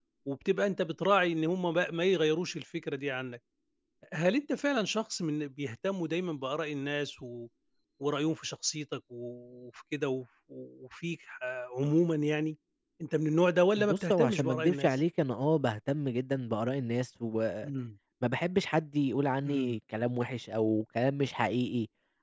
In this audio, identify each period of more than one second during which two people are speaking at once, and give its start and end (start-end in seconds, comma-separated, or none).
13.8-15.0